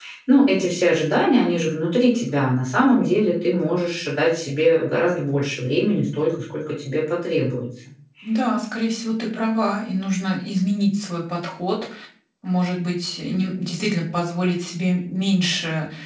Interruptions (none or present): none